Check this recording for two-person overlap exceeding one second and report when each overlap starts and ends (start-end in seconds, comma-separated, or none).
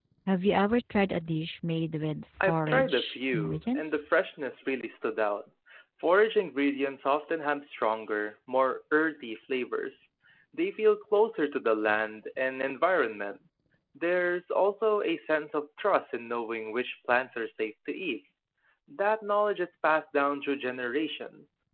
2.4-4.0